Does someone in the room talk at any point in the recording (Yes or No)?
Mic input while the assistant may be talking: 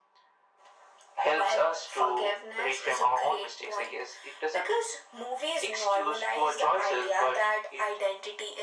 No